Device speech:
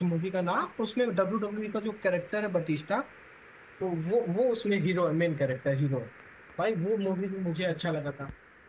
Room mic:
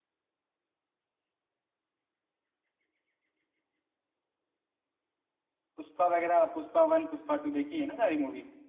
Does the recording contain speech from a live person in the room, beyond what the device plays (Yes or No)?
Yes